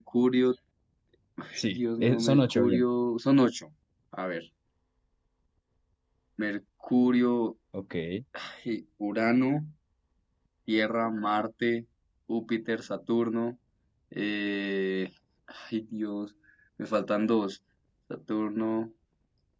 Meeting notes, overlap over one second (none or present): present